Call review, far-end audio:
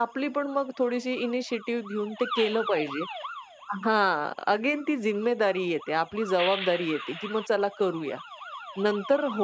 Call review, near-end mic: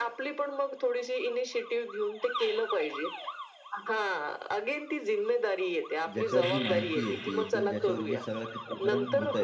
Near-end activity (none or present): present